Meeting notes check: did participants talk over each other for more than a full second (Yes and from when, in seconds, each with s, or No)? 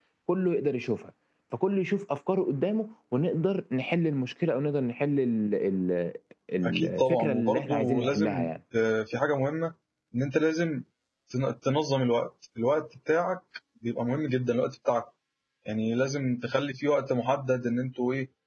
Yes, from 6.6 s